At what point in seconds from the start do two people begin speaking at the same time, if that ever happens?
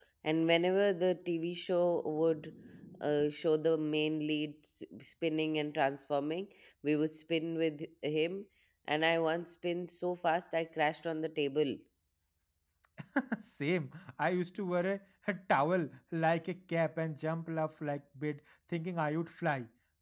none

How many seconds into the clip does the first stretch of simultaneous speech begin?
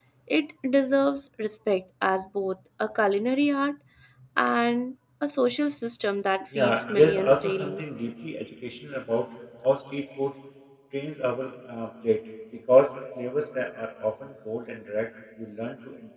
6.5 s

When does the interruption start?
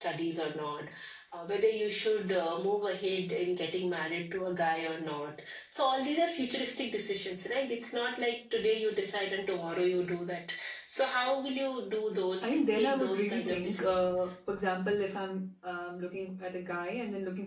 12.4 s

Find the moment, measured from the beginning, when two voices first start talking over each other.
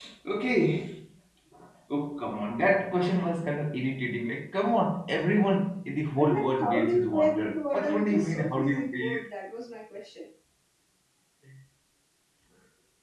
6.1 s

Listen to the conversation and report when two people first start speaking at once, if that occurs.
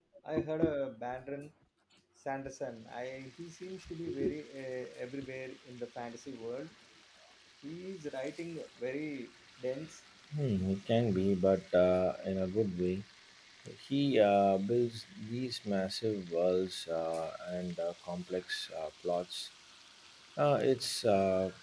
none

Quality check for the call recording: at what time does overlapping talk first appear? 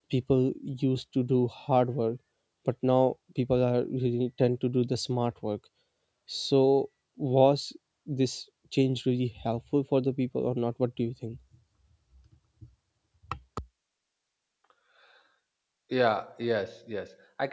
none

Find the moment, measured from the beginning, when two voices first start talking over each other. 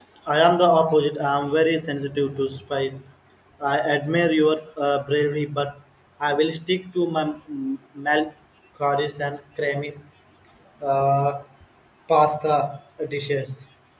none

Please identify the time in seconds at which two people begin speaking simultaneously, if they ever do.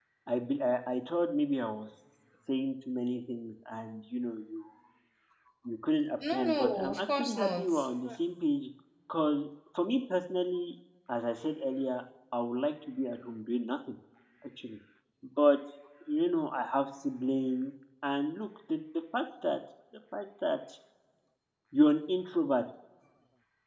6.3 s

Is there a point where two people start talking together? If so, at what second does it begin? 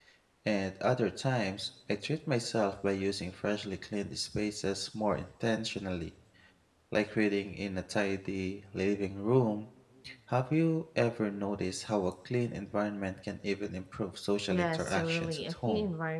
14.5 s

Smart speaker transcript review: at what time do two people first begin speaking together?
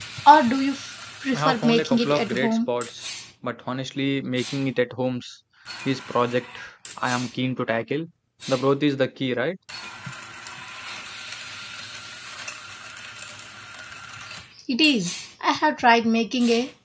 1.3 s

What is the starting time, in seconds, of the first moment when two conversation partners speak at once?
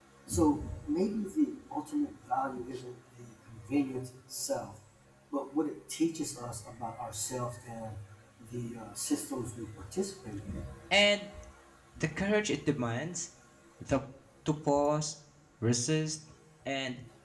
none

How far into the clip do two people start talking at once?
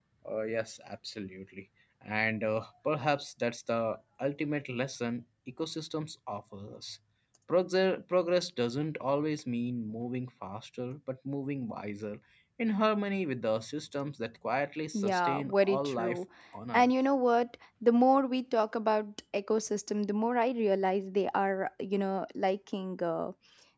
14.9 s

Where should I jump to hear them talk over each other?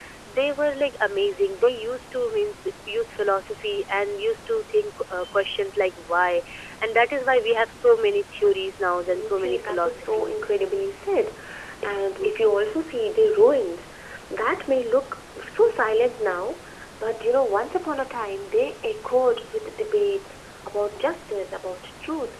9.1 s

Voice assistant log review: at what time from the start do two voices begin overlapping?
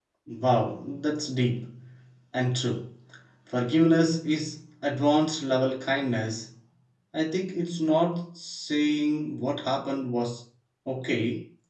none

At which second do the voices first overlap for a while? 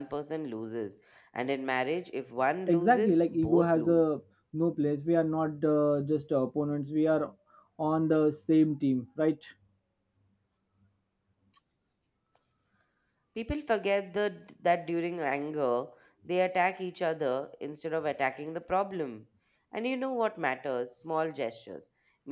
2.7 s

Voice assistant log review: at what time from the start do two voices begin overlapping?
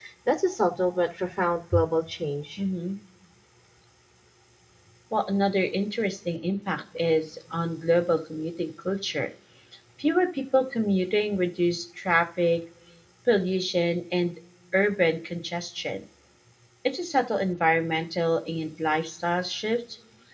none

